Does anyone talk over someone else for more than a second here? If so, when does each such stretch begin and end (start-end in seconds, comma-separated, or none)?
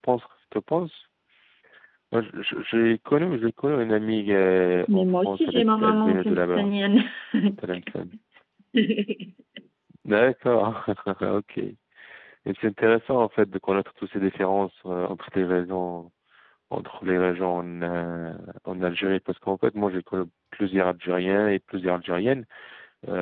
4.9-6.7